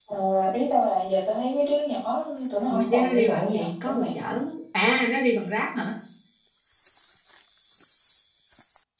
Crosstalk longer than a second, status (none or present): present